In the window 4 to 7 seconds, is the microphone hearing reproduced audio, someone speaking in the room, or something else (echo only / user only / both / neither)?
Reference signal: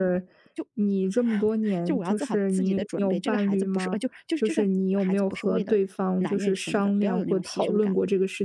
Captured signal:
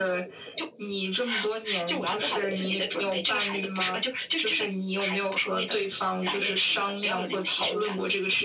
echo only